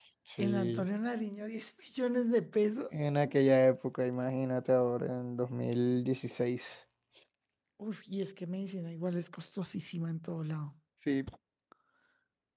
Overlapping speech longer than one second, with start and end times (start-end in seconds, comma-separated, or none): none